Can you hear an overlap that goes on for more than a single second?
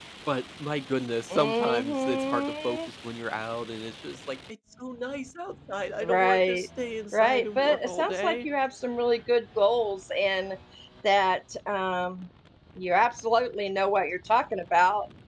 Yes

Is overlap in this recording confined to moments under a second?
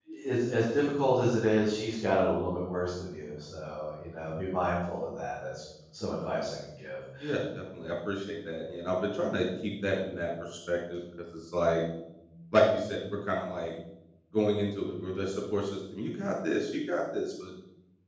Yes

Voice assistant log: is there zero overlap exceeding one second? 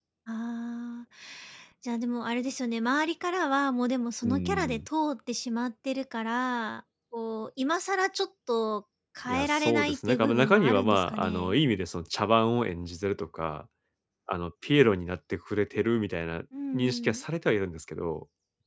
No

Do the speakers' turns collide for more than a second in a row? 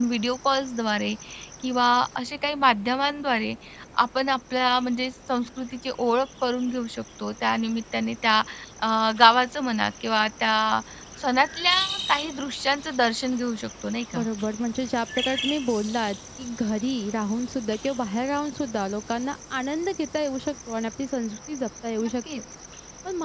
No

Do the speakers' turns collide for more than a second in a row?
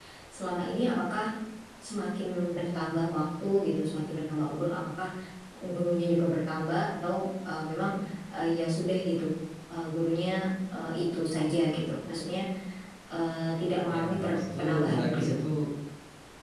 Yes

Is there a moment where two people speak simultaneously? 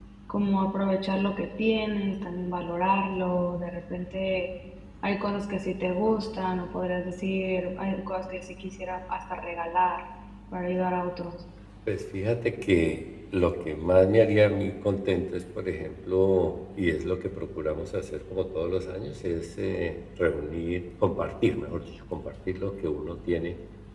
No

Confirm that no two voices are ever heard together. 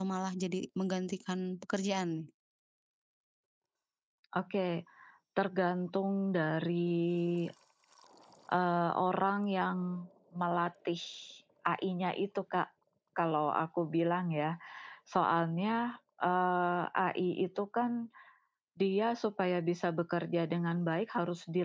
Yes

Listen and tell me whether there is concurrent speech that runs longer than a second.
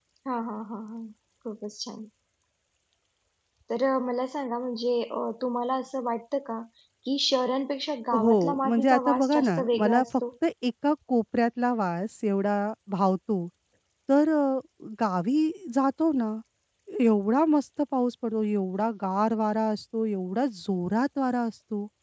Yes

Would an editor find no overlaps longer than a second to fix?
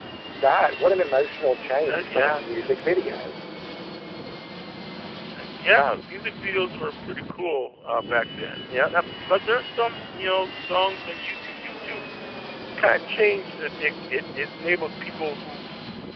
No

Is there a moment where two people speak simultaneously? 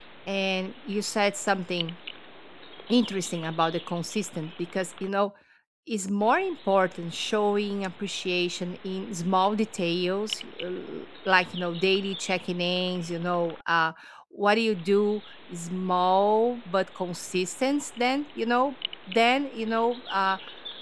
No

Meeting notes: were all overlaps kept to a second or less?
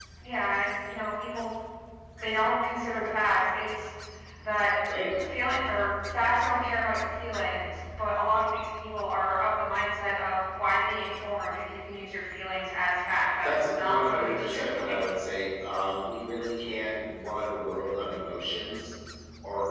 No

